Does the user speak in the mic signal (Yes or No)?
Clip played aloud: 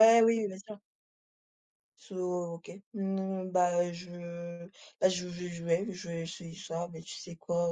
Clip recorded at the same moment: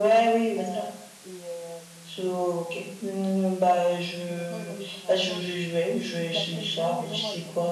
Yes